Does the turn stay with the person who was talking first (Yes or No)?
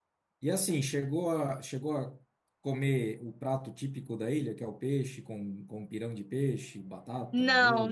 No